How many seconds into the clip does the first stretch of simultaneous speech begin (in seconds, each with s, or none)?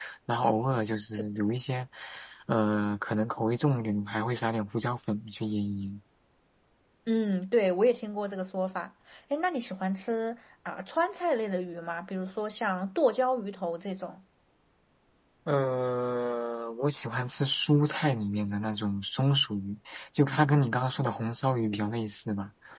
none